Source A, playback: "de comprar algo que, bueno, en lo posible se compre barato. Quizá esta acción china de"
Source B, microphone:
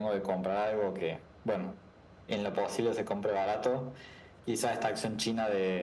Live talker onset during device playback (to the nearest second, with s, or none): none